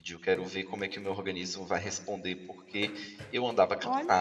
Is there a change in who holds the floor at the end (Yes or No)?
Yes